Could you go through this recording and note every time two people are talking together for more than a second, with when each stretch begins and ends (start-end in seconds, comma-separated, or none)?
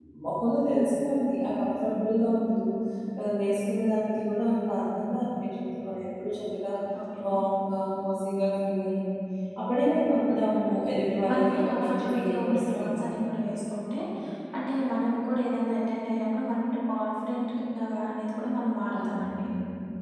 11.3-12.9